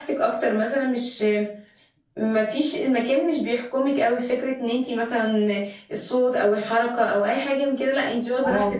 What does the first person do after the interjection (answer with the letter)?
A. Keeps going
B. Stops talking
B